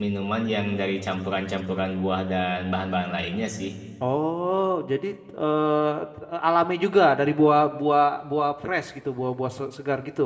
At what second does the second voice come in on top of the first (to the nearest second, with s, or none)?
none